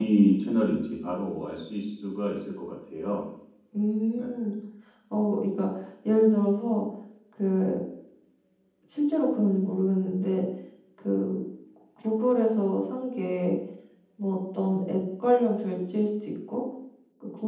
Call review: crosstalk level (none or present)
none